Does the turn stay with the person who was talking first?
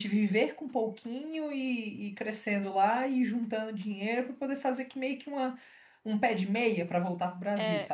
No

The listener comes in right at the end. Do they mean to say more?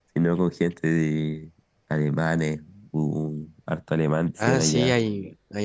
Yes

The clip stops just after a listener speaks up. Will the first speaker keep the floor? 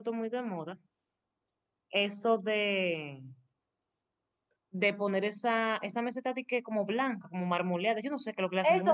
No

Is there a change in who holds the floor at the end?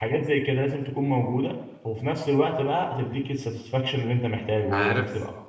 Yes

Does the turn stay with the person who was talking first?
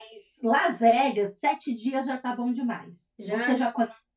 Yes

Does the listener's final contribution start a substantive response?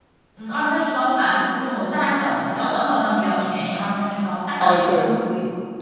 Yes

